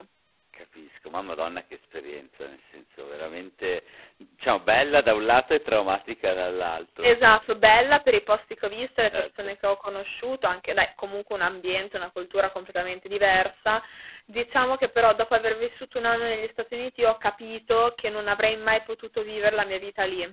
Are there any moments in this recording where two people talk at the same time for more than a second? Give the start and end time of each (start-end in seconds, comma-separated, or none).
none